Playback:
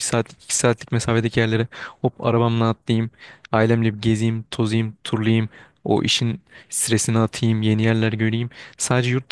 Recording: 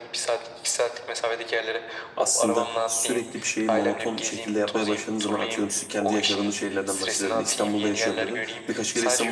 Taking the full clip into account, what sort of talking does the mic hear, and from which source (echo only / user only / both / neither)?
both